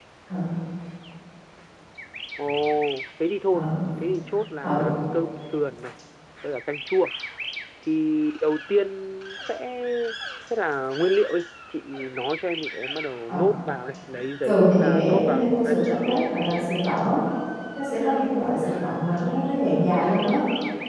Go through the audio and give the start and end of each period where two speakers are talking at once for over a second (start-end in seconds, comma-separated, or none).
14.4-15.8